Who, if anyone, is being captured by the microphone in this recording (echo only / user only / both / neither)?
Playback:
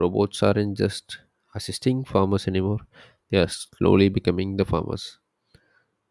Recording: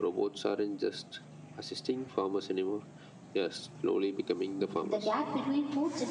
both